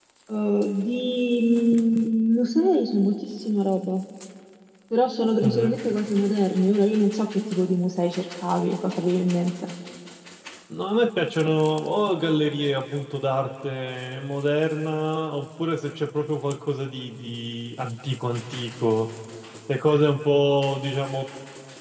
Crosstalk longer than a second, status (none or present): none